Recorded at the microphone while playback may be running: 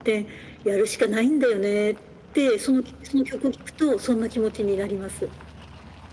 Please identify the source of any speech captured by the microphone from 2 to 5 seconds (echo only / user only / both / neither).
echo only